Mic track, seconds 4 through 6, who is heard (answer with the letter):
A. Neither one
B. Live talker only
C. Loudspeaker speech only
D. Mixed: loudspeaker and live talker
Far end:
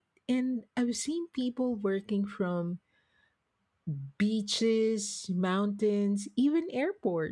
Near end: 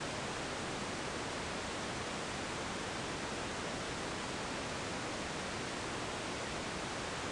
A